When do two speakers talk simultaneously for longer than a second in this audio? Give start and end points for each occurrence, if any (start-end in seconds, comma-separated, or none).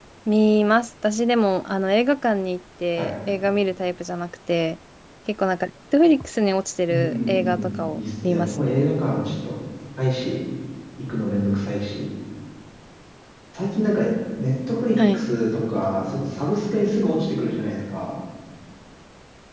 6.9-8.7